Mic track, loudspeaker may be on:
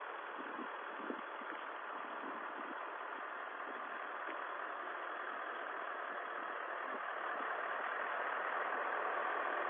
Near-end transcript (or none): none